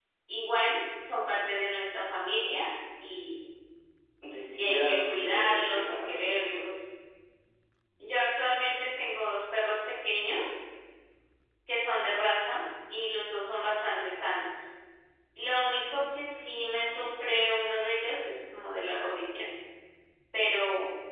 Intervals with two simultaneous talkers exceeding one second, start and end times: 4.6-6.5

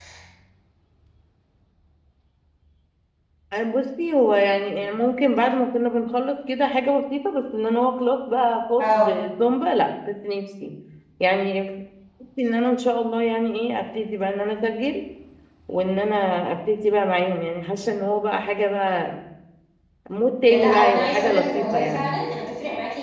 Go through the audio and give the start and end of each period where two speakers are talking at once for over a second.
20.5-22.2

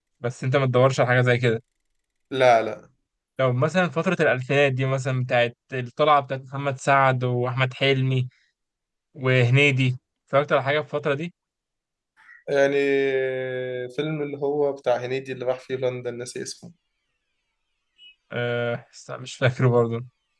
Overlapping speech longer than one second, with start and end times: none

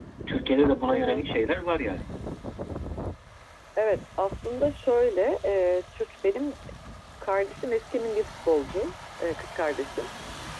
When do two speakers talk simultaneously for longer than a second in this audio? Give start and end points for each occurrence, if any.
none

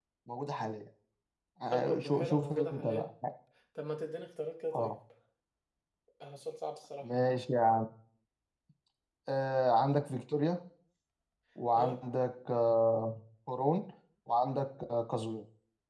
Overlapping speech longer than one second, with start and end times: 1.7-3.1

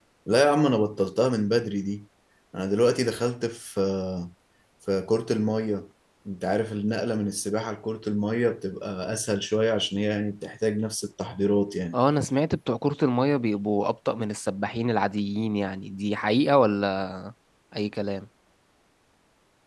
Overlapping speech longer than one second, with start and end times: none

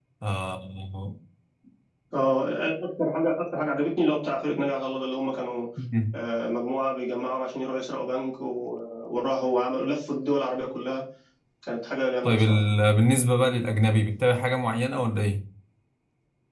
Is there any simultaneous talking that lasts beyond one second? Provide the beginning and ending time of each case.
none

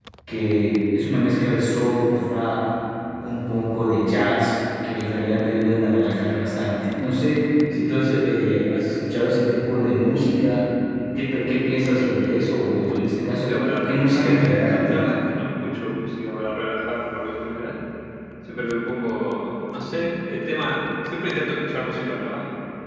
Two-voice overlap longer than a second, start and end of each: 13.0-15.1

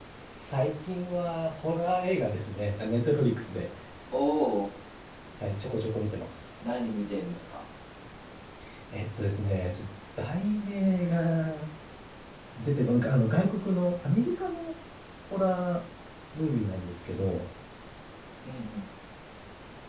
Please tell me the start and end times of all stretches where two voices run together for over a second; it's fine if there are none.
none

